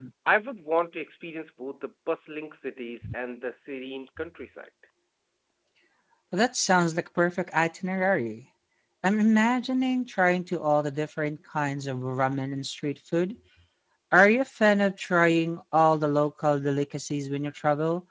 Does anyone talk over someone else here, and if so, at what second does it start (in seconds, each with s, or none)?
none